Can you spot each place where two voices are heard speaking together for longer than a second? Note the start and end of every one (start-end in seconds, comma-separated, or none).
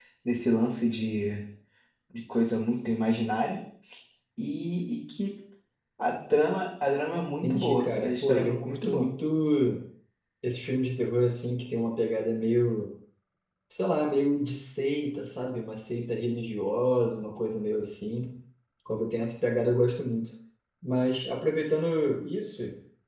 7.4-9.1